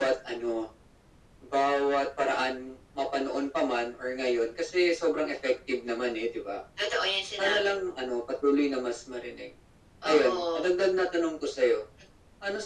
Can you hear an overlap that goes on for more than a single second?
No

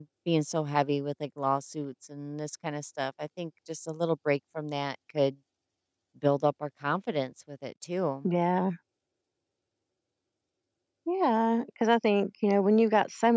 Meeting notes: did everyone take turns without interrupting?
Yes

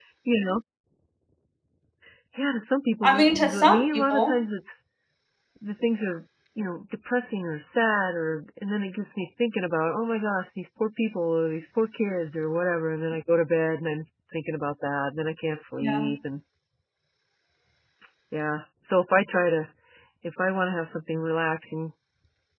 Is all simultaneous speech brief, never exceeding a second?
No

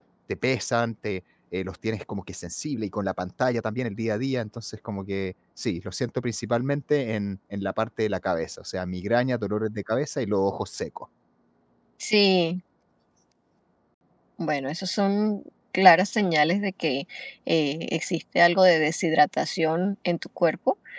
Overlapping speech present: No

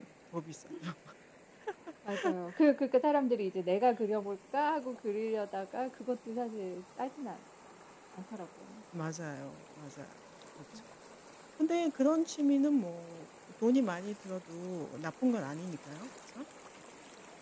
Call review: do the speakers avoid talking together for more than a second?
Yes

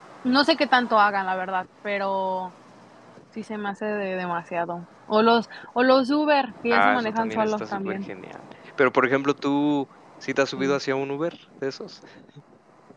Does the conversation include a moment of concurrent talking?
Yes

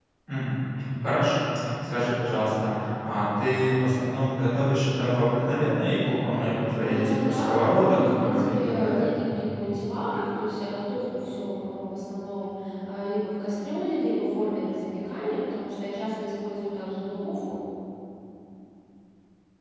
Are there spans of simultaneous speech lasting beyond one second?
Yes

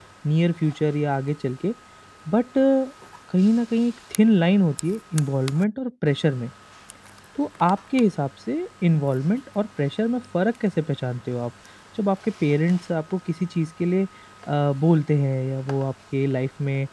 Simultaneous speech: No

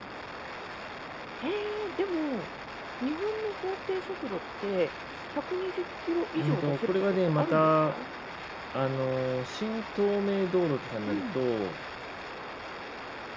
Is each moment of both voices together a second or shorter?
No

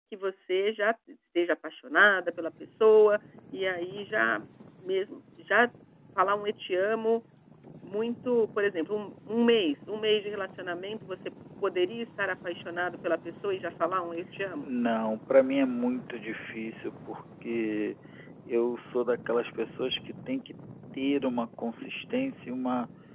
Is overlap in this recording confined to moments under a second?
Yes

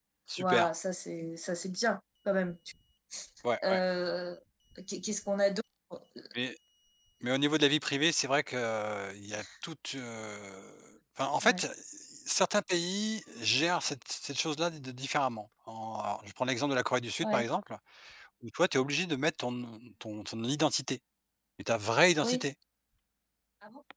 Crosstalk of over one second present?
No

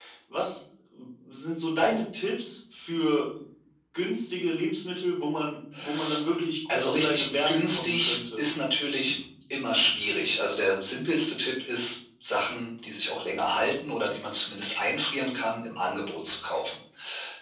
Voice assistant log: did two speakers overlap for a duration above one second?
Yes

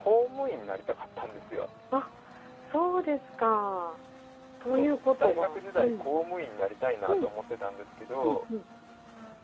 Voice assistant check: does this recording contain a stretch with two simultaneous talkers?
Yes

